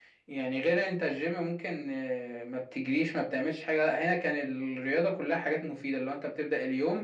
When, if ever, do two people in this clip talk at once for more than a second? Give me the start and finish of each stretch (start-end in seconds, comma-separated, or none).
none